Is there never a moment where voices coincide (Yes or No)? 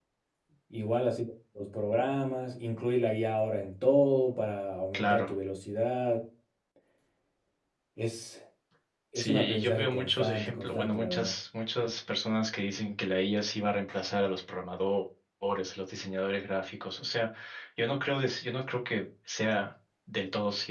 No